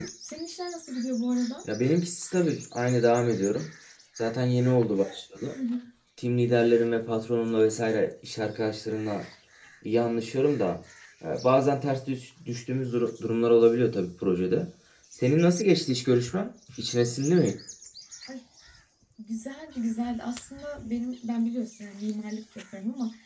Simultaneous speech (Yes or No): No